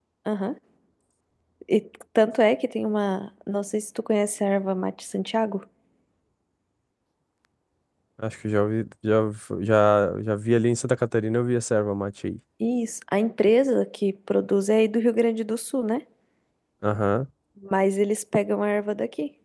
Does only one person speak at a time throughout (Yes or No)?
Yes